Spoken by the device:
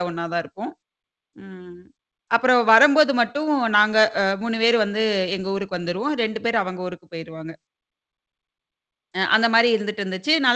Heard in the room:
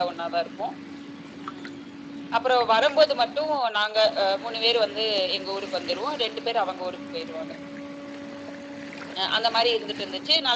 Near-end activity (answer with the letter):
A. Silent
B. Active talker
A